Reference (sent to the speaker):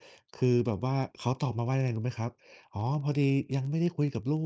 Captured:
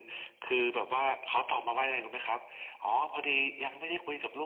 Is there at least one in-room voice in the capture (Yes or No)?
No